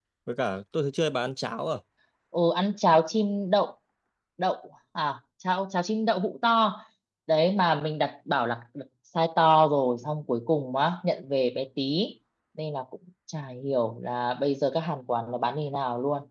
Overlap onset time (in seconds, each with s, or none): none